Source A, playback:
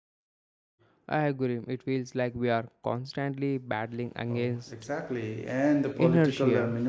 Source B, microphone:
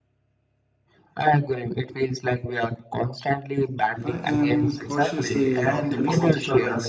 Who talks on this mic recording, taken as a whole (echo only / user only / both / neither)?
both